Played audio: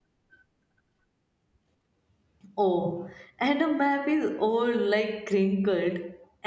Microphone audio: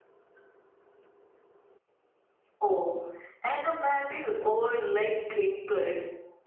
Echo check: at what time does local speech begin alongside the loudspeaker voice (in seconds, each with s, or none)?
none